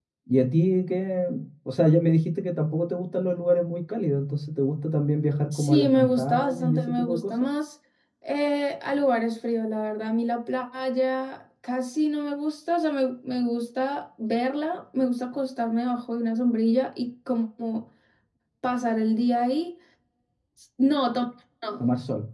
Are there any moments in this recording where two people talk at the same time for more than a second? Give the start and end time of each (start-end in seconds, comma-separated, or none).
5.5-7.5